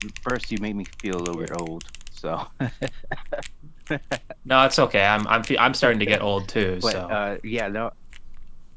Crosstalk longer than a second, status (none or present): none